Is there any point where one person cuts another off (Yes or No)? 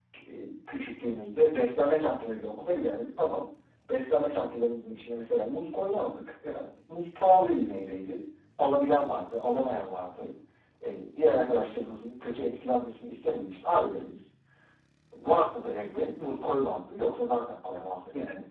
No